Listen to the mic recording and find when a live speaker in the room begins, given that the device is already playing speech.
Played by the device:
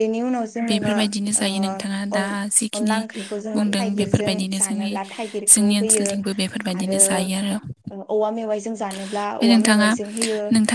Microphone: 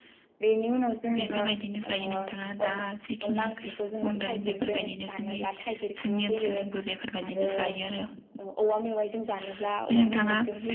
none

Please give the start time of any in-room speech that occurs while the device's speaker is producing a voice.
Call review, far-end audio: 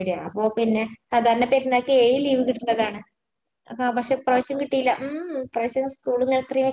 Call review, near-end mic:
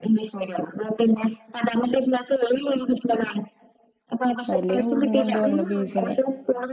4.5 s

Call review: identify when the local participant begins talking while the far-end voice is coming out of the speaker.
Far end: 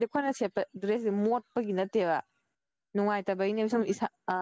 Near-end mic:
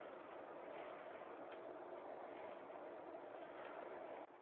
none

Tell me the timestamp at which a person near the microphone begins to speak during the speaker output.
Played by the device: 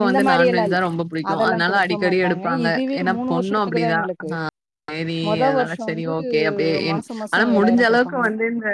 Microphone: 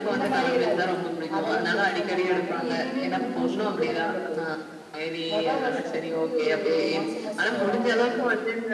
none

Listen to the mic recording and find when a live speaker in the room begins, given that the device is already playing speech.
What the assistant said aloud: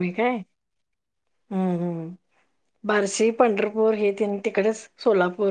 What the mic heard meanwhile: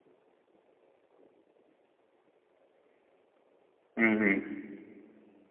3.8 s

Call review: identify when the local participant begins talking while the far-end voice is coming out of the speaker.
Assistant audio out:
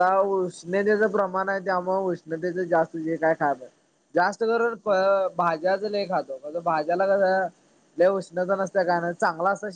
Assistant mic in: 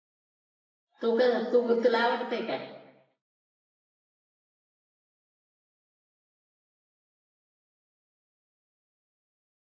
1.0 s

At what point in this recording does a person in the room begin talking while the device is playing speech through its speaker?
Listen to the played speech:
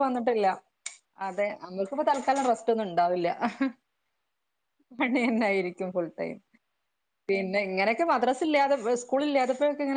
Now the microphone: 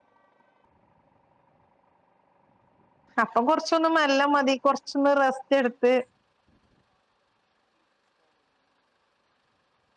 3.2 s

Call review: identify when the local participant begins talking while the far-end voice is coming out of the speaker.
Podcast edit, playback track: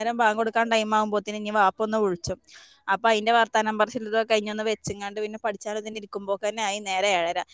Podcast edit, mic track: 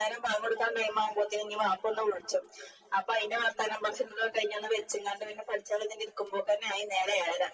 none

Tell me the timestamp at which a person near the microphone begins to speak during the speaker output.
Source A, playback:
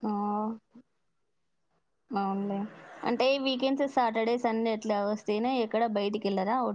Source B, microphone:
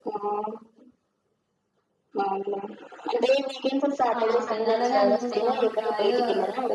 4.2 s

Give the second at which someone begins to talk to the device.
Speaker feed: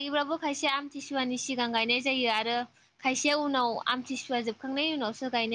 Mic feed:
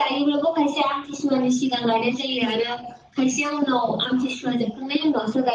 none

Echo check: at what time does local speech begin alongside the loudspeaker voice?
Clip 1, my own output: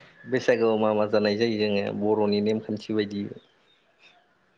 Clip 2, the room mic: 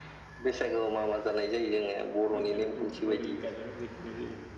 2.4 s

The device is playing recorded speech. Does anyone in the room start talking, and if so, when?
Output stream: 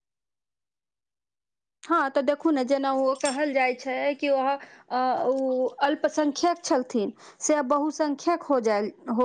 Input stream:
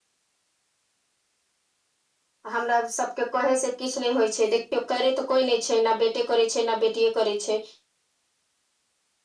2.5 s

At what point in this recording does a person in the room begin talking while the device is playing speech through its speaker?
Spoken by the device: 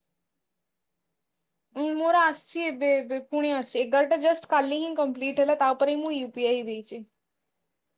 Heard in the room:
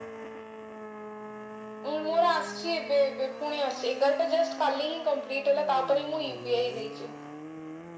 none

